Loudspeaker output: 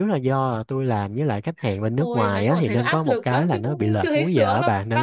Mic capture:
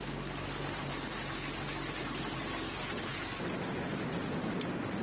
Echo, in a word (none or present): none